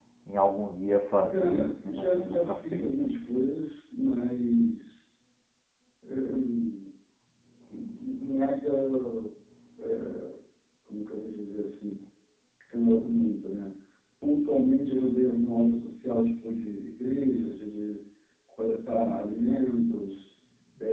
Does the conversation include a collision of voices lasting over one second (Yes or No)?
Yes